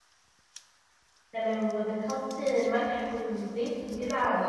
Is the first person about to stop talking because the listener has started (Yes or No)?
Yes